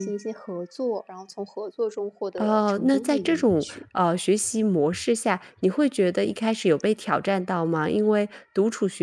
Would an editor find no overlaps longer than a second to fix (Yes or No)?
No